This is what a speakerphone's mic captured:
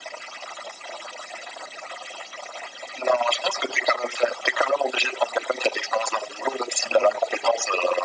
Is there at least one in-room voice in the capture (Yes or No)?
Yes